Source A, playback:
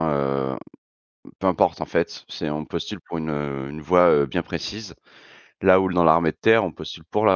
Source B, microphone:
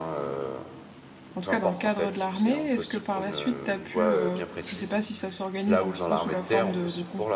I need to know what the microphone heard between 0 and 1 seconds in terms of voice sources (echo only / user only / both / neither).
echo only